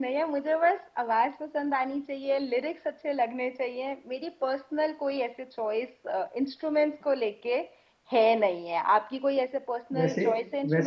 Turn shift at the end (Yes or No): Yes